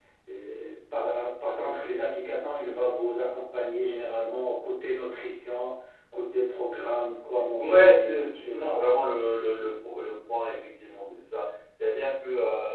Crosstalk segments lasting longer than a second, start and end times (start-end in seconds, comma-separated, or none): 7.6-8.8